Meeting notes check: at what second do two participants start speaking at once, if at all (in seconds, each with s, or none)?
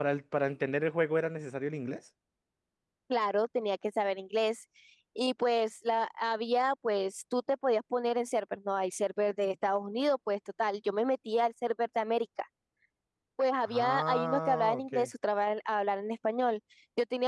13.7 s